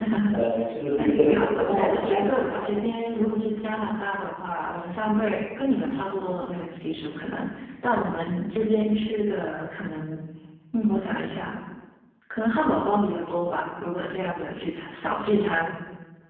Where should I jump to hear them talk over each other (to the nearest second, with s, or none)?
1 s